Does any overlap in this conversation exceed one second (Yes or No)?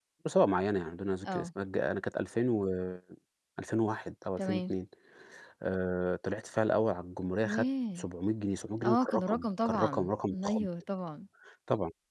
Yes